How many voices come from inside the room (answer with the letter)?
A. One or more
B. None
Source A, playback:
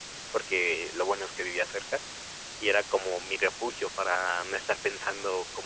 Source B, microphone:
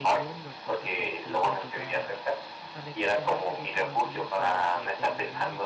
A